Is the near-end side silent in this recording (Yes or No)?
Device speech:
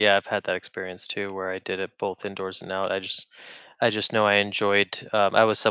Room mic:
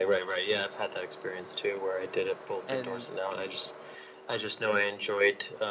No